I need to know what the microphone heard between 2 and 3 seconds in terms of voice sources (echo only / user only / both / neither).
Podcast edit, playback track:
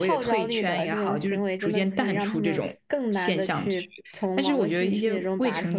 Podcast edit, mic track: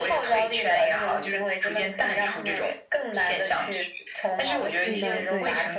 echo only